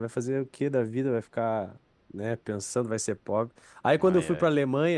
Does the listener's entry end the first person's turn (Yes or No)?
No